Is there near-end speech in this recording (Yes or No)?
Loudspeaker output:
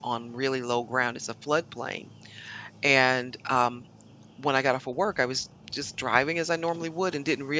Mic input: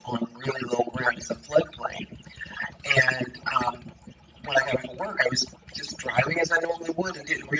No